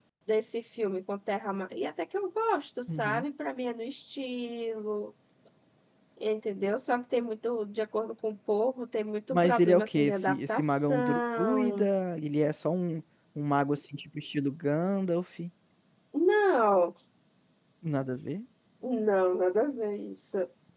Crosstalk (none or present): present